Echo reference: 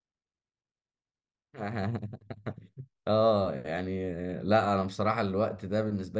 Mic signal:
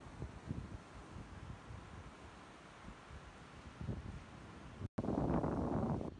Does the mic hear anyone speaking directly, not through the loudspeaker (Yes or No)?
No